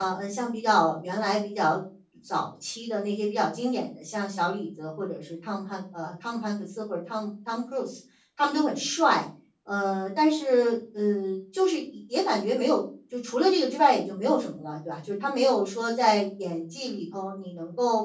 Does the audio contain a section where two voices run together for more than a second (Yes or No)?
No